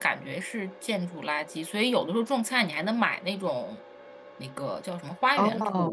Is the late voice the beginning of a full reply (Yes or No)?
No